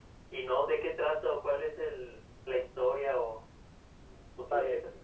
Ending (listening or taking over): taking over